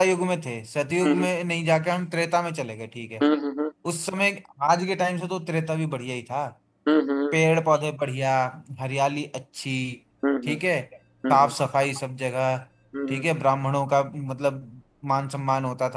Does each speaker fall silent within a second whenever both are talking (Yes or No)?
Yes